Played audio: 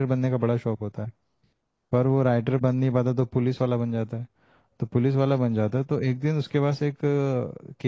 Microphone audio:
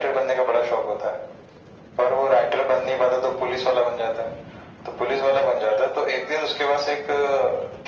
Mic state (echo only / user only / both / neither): echo only